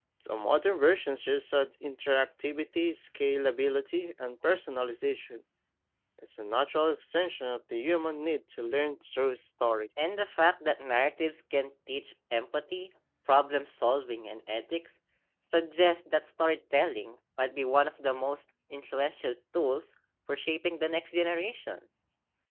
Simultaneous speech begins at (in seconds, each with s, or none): none